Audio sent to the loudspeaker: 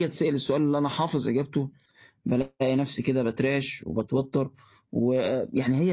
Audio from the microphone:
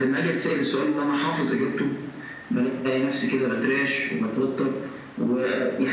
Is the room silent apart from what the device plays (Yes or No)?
Yes